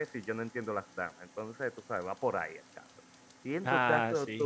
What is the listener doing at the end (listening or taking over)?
listening